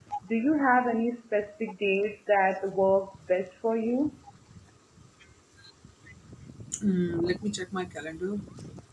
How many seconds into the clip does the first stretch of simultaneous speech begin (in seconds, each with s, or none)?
none